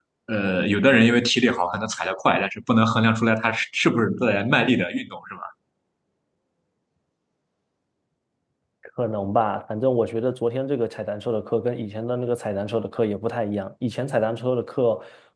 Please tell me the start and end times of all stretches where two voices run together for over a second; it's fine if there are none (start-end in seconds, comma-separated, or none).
none